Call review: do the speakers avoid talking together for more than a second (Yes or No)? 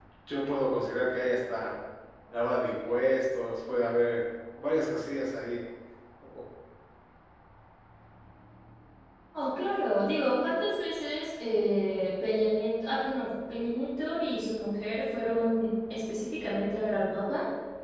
Yes